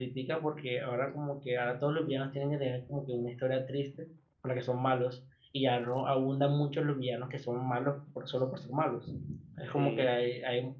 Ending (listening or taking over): listening